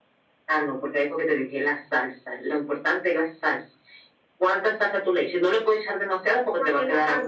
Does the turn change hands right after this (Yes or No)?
Yes